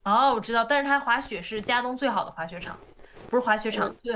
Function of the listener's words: listening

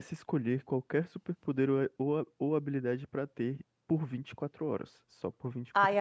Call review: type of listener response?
taking over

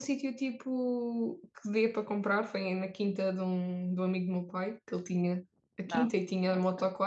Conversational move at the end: listening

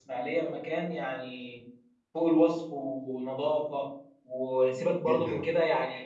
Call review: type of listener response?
listening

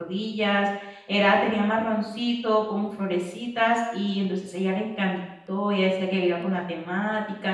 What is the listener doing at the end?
listening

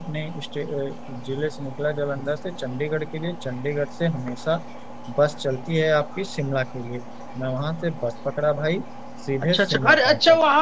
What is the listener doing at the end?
taking over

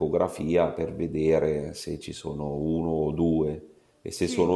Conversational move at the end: listening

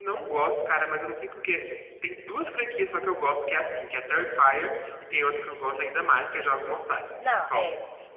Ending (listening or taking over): taking over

